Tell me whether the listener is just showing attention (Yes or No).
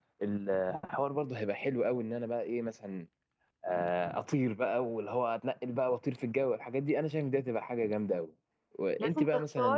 No